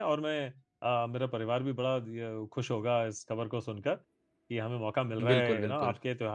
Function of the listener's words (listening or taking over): listening